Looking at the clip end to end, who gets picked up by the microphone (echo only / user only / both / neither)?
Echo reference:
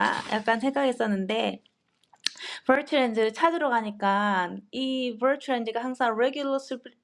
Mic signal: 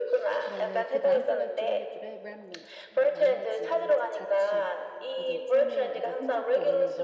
both